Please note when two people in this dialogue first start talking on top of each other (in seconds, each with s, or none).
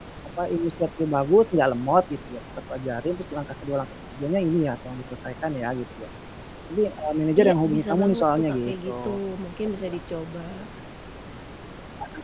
7.4 s